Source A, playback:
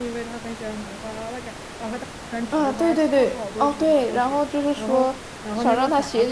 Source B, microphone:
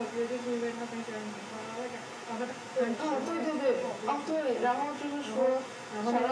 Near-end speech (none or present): present